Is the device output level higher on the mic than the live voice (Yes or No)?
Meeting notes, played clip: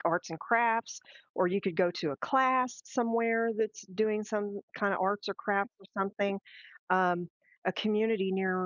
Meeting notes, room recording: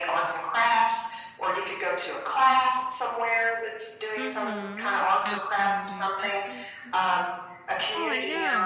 Yes